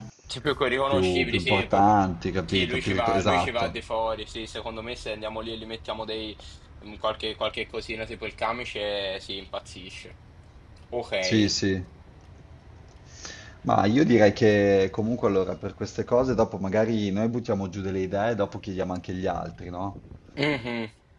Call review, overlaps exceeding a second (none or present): present